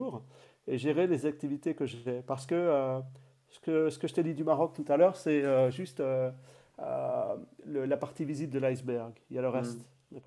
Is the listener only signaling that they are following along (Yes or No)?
No